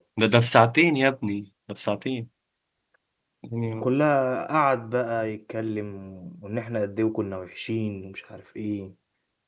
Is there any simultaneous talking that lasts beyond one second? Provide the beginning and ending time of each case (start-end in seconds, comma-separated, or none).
none